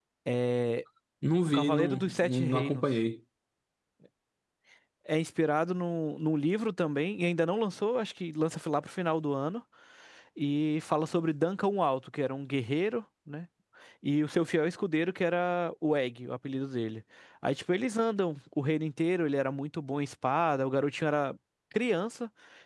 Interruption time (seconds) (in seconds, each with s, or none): 1.5 s